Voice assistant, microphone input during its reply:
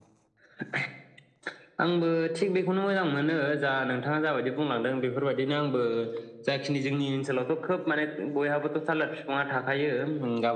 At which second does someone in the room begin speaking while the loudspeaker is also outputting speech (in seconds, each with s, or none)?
none